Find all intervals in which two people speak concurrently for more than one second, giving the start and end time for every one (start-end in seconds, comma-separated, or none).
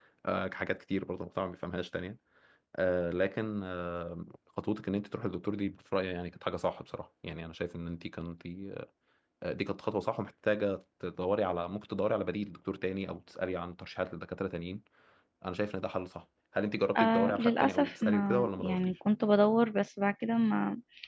17.0-18.9